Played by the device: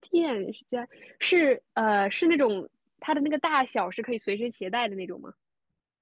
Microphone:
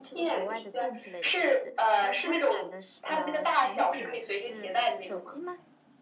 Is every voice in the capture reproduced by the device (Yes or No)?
No